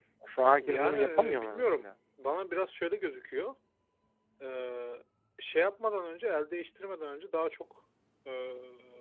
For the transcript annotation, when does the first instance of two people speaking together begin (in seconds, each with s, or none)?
0.6 s